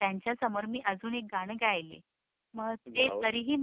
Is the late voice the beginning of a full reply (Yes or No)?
No